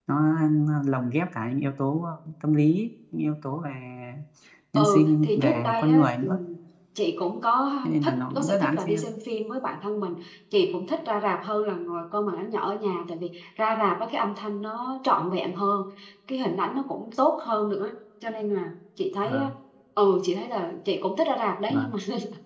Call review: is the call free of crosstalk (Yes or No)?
No